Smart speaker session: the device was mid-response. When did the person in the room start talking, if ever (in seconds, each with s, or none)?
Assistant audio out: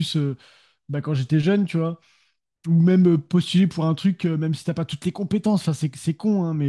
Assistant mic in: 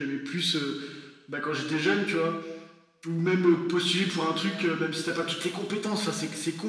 none